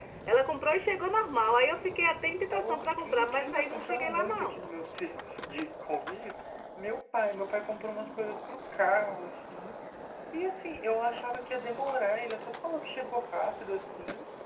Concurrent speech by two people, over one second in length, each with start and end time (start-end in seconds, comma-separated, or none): 2.5-4.6